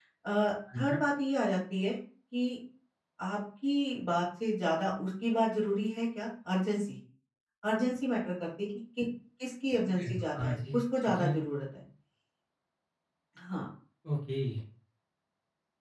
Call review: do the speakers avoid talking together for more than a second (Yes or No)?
No